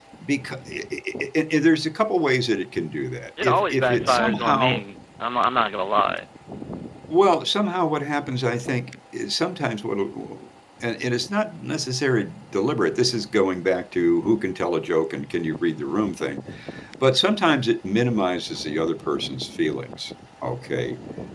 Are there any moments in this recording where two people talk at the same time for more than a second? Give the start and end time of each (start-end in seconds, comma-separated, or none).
3.4-4.8